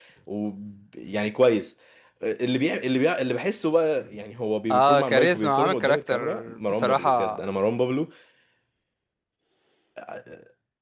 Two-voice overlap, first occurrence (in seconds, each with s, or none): 4.7 s